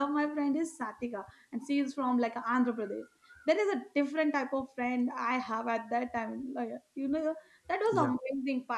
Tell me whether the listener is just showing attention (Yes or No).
Yes